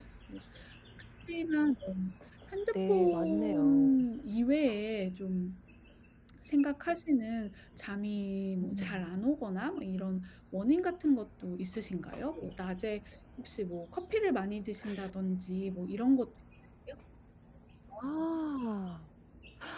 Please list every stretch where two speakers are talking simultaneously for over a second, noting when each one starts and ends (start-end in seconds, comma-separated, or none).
2.7-4.1